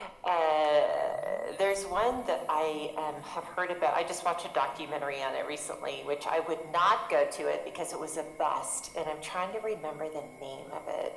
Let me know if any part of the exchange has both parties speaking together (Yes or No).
No